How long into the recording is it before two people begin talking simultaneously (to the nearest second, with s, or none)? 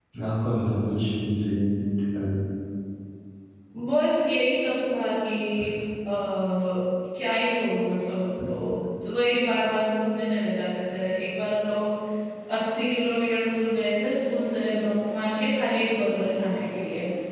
none